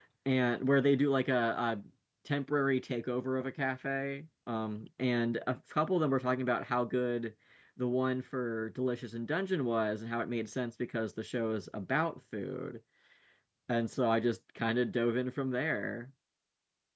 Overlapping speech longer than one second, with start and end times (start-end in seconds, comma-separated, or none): none